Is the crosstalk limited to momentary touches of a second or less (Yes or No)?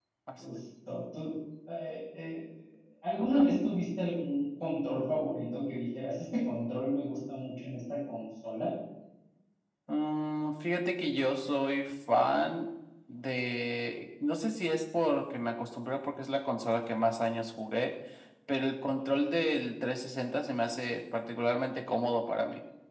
Yes